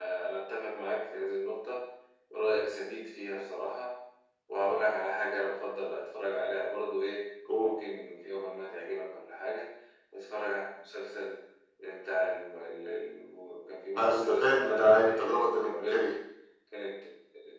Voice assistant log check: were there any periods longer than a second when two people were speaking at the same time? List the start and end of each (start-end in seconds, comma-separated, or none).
14.0-16.1